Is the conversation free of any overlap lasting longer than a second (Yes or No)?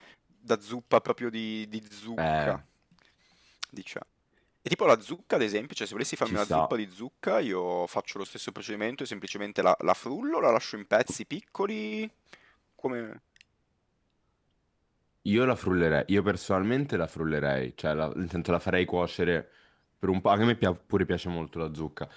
Yes